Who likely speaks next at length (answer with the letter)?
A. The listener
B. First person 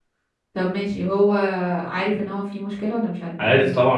A